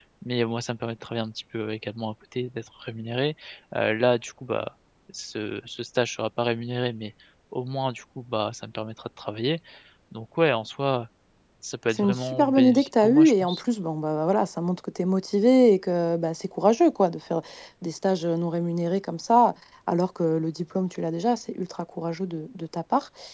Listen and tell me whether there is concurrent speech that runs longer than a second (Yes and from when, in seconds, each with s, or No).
Yes, from 11.9 s